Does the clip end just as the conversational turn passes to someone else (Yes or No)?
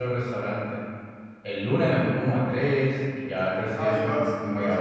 Yes